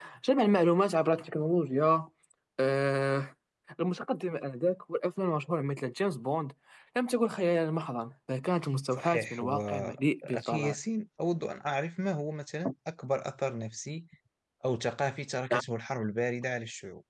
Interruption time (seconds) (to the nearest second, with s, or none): 9 s